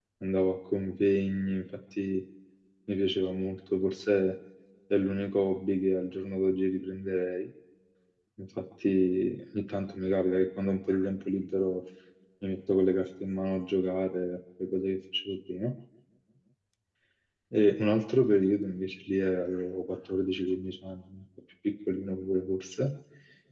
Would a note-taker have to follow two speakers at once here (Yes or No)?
No